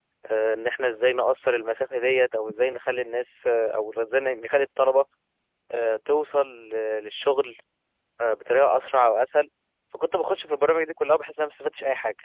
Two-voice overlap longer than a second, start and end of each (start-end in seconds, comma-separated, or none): none